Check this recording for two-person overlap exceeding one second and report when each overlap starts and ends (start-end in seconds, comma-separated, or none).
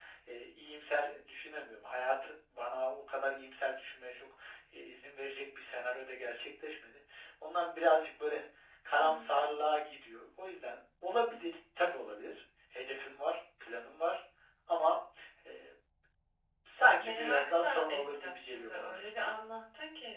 17.0-19.4